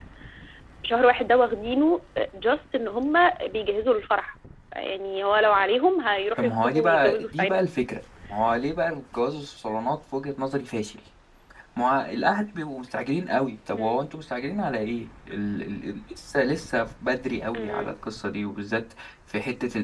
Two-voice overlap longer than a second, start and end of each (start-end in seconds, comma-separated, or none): 6.4-7.6